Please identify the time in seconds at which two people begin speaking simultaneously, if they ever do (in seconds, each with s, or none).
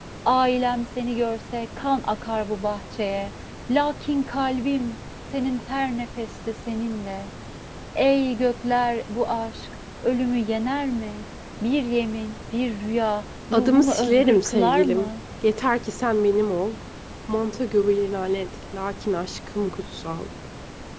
13.5 s